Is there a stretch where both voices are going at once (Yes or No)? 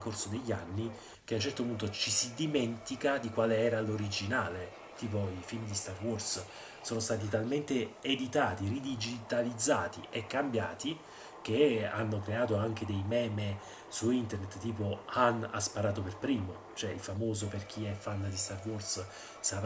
No